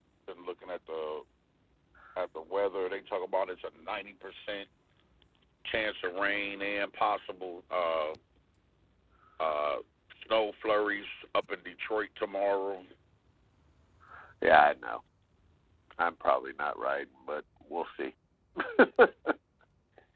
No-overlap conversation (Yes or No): Yes